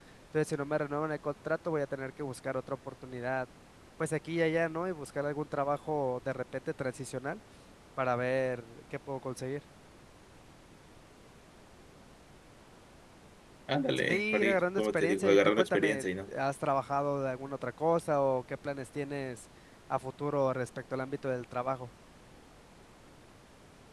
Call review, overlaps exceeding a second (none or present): present